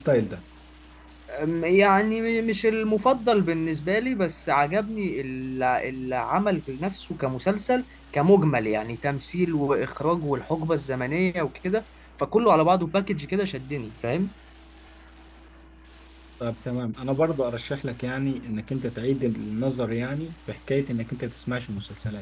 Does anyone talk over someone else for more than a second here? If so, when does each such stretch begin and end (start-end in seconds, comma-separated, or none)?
none